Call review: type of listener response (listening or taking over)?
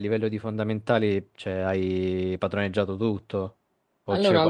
taking over